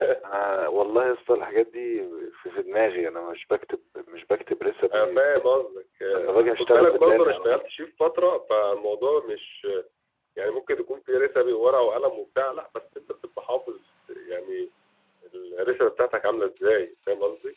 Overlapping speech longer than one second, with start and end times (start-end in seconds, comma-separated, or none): 6.1-7.6